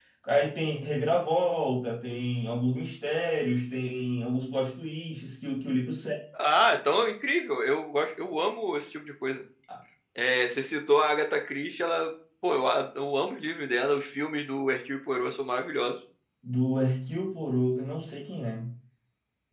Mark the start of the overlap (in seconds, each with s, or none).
none